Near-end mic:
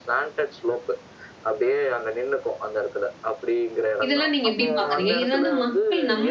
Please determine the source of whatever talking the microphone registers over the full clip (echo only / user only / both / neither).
both